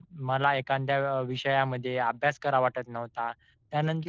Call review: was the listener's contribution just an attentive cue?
No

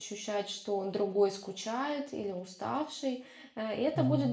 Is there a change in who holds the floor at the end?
No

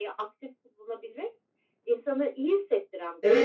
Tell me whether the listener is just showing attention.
No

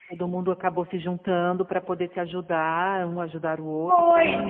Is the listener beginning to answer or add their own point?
Yes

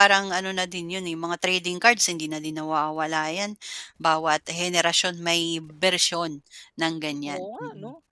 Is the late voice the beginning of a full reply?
Yes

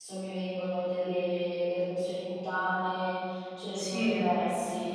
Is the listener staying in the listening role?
Yes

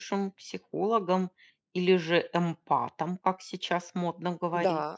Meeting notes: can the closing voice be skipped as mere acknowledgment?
No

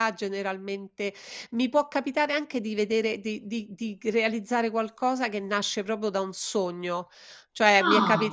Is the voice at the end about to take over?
No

